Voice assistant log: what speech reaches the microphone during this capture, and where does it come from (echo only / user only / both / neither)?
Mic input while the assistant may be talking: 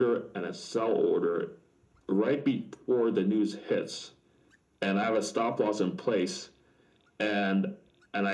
echo only